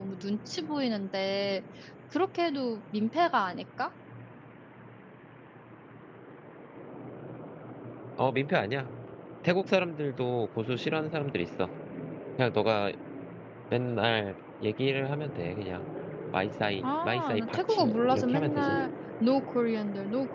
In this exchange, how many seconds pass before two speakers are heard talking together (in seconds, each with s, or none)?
16.8 s